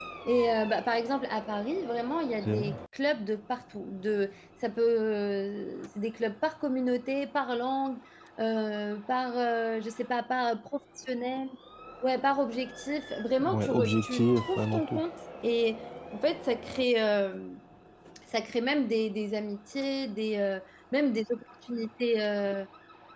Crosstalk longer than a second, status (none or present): present